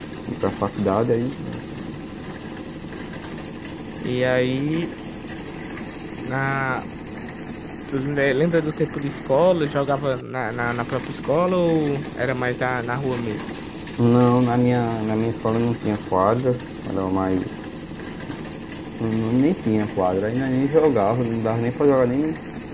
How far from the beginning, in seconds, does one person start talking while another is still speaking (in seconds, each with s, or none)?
none